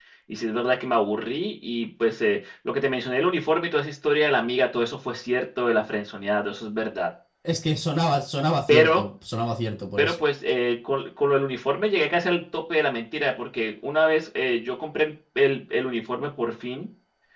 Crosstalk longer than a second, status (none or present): none